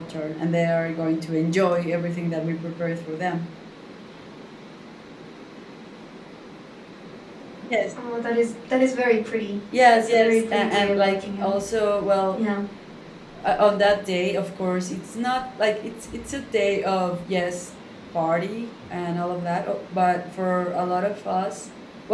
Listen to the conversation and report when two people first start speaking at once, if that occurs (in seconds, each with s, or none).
9.7 s